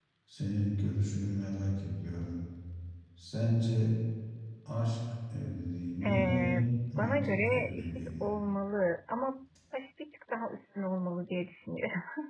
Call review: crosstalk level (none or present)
present